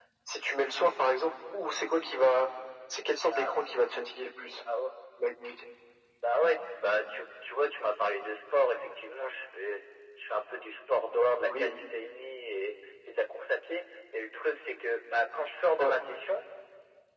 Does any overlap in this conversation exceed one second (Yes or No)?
No